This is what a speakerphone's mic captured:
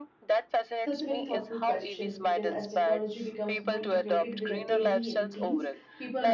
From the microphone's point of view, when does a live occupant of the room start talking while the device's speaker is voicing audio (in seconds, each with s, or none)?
0.8 s